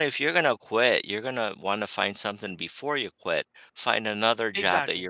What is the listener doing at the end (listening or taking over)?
listening